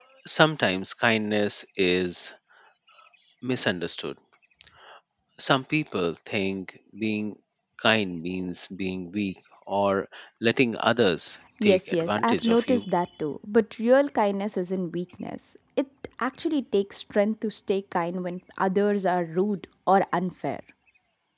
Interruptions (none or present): present